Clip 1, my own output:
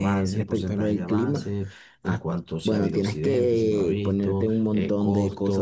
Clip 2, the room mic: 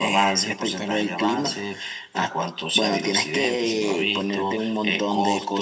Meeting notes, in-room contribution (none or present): none